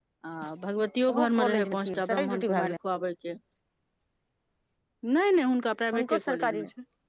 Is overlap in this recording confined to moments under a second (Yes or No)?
No